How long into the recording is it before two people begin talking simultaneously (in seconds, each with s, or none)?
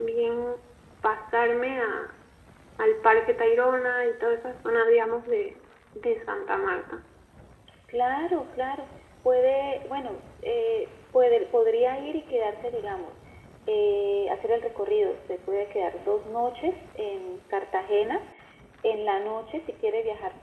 none